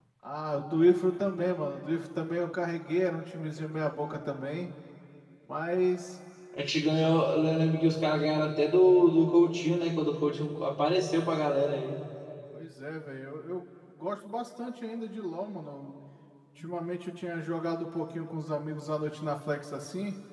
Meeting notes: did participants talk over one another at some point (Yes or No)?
No